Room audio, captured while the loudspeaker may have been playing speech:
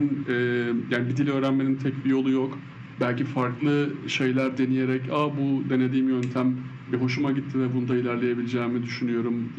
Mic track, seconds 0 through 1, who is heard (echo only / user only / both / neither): echo only